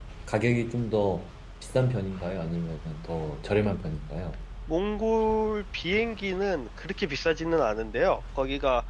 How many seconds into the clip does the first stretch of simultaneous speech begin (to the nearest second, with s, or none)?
none